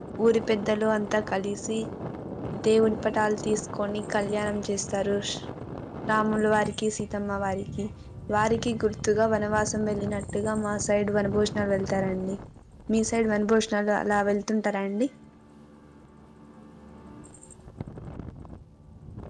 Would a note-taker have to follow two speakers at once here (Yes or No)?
No